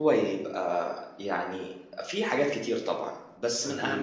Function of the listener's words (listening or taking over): listening